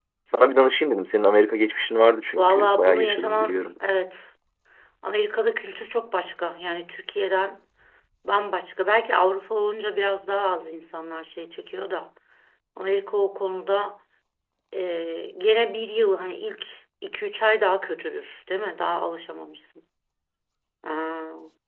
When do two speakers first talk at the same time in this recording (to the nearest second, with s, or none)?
2 s